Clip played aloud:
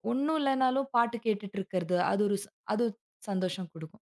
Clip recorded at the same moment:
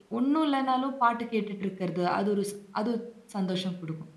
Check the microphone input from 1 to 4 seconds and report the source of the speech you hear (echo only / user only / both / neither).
echo only